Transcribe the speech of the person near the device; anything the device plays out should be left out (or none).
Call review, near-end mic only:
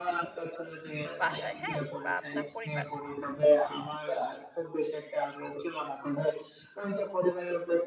বাসায়, হ্যাঁ? বা আপনার পরিবার।